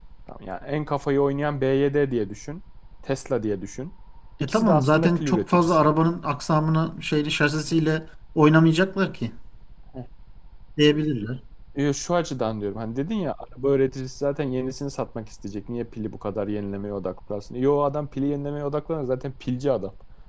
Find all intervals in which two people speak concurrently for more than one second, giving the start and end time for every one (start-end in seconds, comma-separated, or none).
4.4-5.9